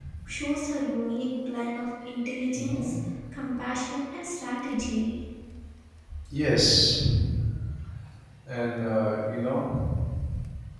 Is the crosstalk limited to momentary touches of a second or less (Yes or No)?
Yes